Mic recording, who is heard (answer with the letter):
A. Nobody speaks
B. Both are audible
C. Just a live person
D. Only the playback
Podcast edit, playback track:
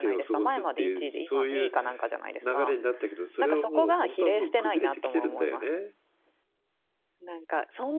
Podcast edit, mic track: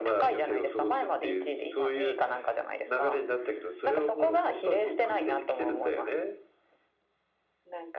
D